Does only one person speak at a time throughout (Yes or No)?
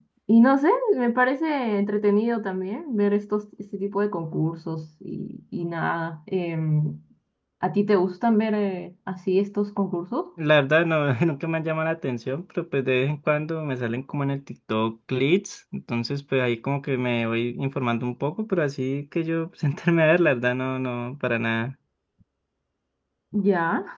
Yes